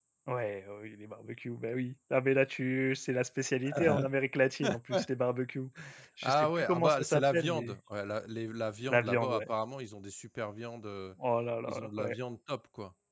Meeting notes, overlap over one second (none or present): present